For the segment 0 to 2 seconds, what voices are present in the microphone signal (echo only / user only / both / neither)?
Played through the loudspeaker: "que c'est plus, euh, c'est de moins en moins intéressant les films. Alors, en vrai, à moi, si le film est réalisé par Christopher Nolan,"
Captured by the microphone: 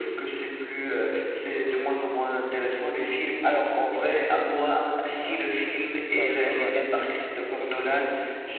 echo only